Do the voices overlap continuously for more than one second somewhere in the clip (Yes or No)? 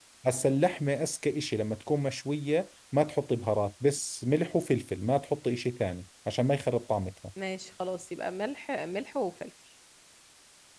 No